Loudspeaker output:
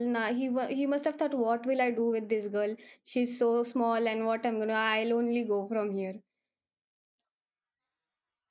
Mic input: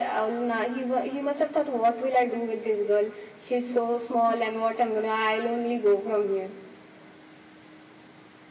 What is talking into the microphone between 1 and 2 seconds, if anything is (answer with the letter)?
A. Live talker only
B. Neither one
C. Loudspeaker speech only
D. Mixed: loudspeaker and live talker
C